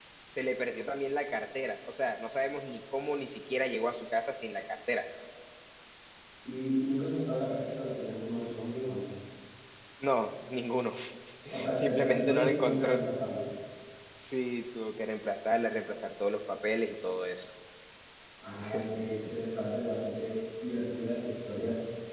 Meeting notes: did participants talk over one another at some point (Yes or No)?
Yes